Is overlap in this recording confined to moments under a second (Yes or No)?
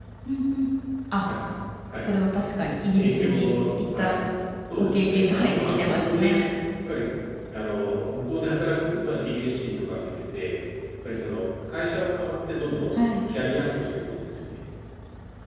No